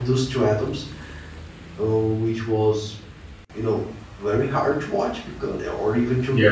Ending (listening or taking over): listening